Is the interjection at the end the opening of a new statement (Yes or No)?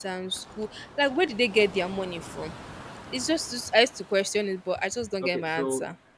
Yes